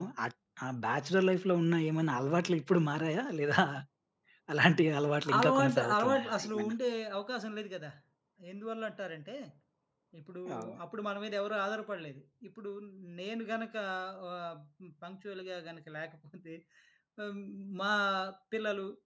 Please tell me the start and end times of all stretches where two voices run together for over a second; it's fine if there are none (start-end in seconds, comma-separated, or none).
5.4-6.7